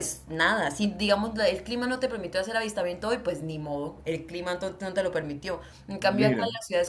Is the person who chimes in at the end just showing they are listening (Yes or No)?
Yes